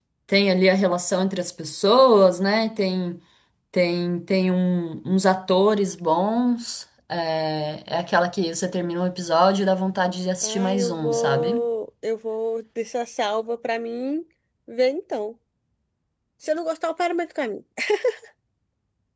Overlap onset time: 10 s

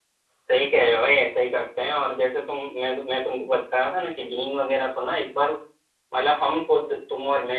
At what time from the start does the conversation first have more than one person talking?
none

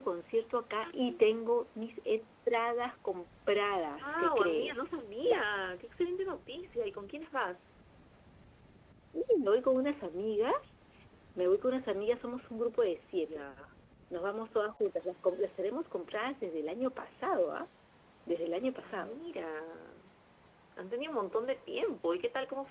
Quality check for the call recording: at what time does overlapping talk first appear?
4 s

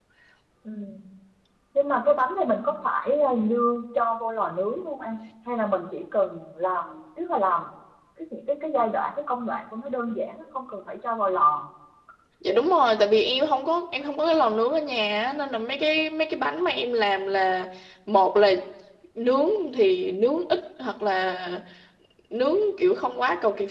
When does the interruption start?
none

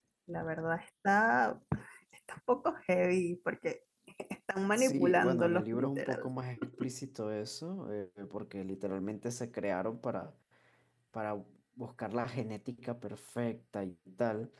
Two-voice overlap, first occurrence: 5 s

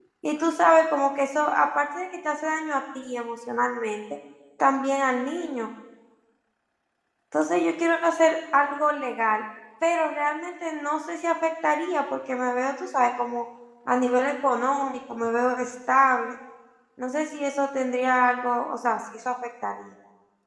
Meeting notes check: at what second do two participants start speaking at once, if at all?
none

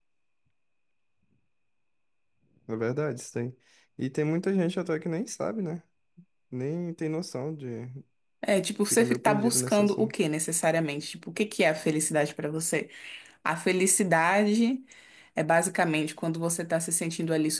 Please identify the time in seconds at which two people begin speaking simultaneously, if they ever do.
9 s

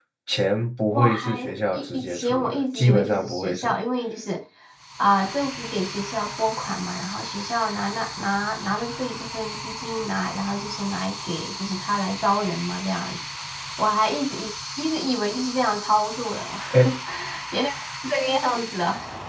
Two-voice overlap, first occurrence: 1 s

